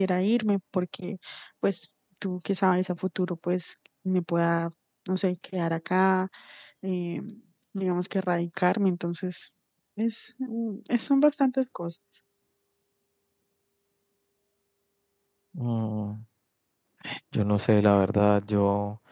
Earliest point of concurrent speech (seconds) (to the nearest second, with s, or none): none